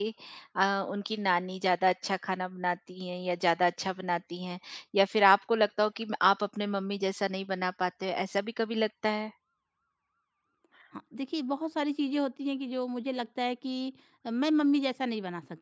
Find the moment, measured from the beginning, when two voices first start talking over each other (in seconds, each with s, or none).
none